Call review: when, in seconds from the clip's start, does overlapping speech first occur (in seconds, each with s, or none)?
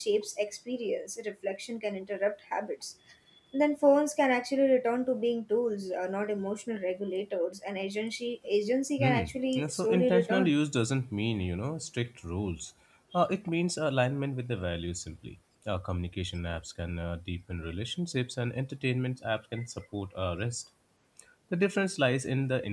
9.0 s